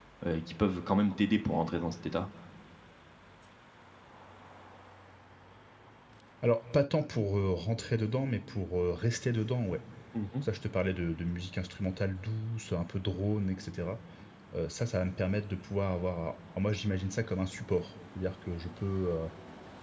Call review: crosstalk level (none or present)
none